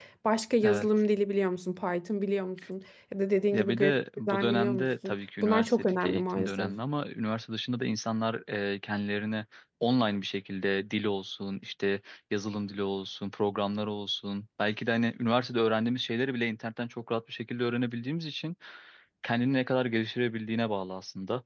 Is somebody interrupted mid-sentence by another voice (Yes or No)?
Yes